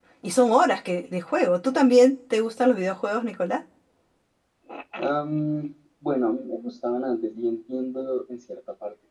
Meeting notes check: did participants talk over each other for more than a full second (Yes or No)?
No